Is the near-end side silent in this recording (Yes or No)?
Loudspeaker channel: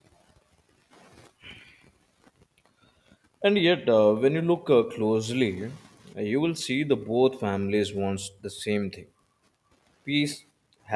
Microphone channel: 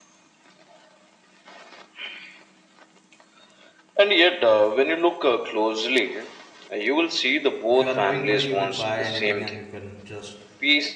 No